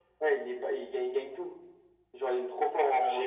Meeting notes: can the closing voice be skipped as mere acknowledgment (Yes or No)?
No